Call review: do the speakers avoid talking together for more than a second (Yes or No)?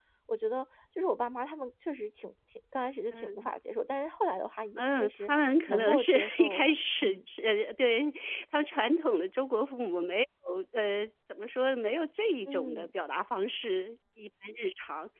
No